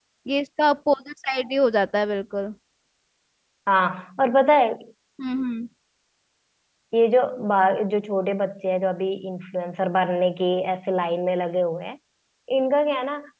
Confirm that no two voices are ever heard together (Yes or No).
Yes